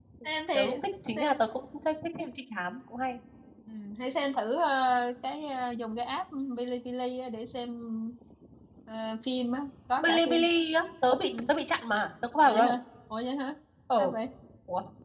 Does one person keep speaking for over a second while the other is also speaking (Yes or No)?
No